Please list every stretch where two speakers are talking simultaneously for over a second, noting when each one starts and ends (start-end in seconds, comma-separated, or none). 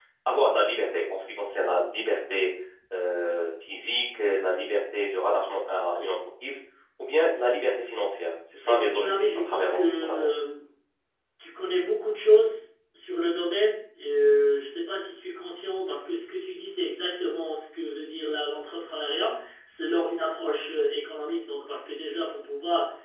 8.6-10.3